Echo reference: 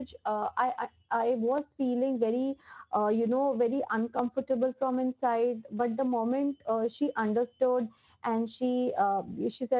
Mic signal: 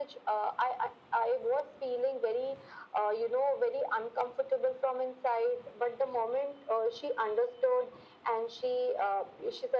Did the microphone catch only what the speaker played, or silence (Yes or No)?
Yes